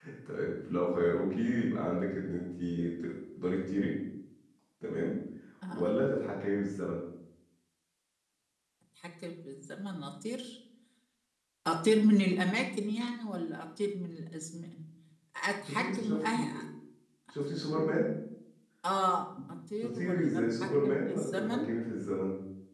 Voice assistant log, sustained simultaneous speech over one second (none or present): present